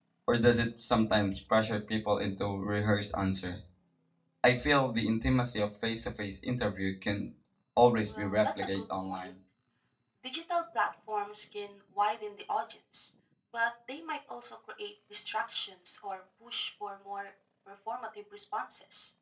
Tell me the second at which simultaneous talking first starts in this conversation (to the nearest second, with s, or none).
8 s